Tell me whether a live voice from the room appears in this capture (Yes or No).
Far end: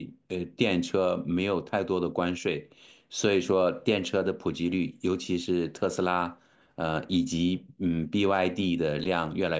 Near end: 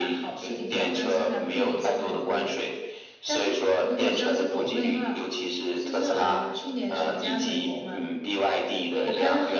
Yes